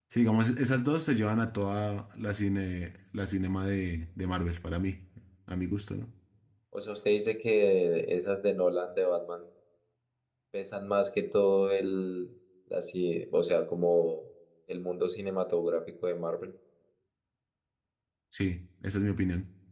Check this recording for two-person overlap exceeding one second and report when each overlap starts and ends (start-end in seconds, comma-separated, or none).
none